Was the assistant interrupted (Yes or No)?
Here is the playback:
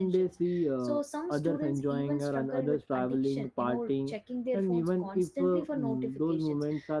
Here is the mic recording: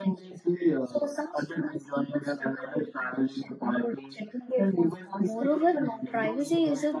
Yes